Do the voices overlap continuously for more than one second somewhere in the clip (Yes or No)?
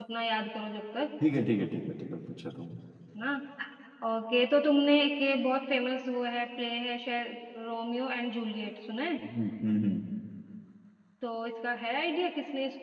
No